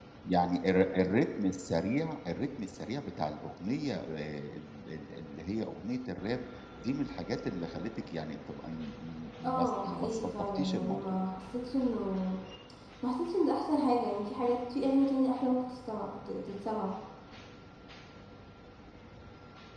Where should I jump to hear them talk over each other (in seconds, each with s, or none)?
9.4 s